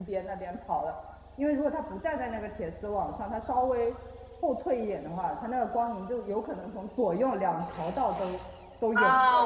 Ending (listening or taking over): taking over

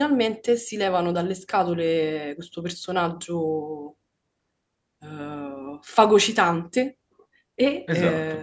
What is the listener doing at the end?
listening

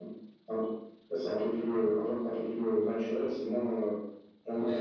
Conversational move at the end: taking over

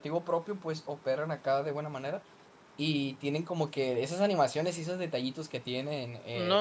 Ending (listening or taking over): taking over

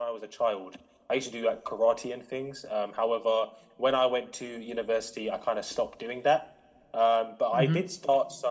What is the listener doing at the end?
listening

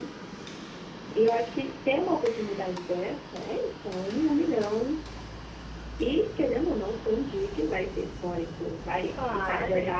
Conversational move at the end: listening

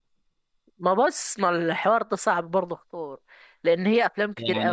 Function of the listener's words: taking over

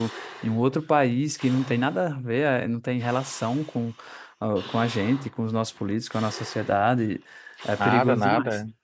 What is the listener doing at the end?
taking over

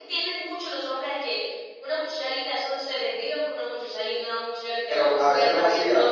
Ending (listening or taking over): taking over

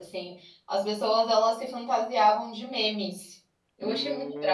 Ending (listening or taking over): taking over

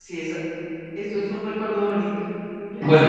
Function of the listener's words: taking over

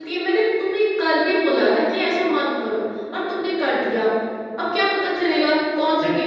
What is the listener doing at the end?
listening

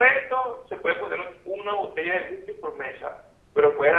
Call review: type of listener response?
listening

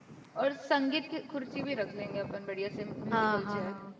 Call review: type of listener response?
taking over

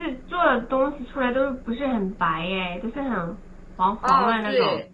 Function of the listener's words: taking over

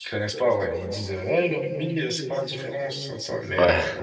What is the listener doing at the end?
listening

